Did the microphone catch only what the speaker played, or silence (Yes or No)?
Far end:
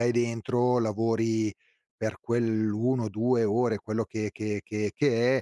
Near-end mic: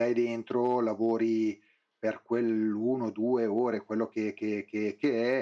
Yes